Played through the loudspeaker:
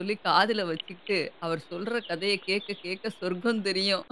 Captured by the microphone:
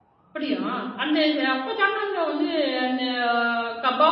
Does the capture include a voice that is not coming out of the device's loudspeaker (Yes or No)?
Yes